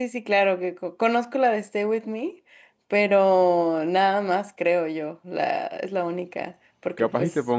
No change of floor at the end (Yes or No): No